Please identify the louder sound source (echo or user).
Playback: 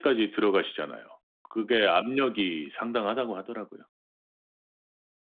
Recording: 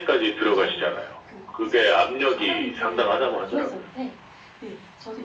echo